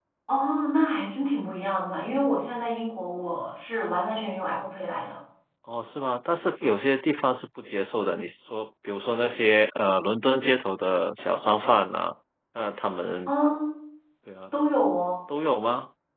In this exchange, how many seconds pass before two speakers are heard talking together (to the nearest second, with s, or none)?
none